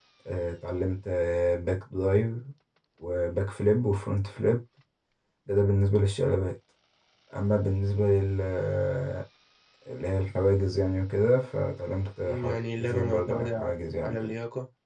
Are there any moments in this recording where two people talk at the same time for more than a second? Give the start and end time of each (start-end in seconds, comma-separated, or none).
12.2-13.7